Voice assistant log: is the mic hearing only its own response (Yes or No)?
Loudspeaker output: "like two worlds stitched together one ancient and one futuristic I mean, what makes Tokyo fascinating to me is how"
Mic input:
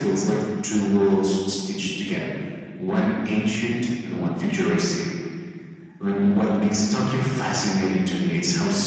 Yes